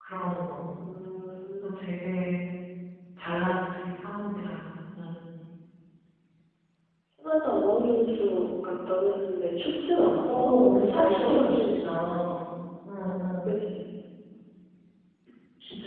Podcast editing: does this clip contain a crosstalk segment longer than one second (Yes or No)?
Yes